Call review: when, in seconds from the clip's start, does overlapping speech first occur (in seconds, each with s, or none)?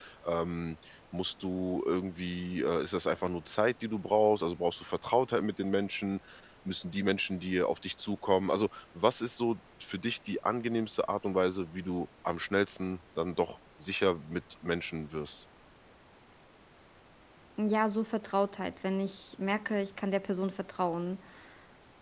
none